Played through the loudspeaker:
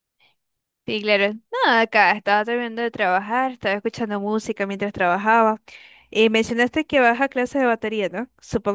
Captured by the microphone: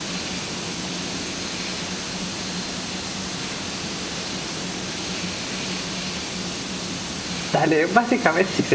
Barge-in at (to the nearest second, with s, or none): 7 s